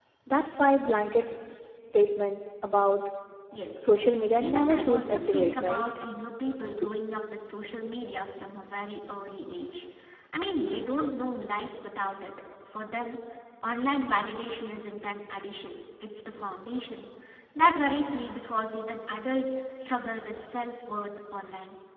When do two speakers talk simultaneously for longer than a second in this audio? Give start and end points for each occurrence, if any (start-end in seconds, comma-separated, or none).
4.4-5.8